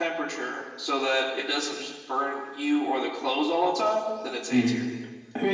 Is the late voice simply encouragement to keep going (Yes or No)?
No